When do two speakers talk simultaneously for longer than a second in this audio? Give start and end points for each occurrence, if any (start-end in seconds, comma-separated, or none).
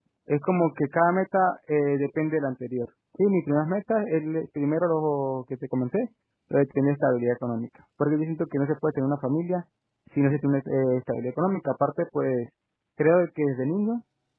none